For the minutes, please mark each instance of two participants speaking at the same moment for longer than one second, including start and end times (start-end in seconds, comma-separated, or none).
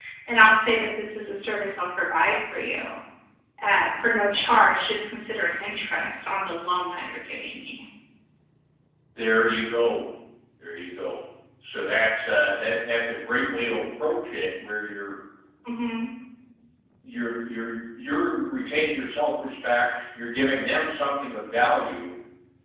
none